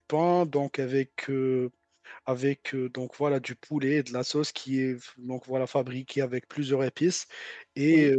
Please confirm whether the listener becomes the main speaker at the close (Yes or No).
No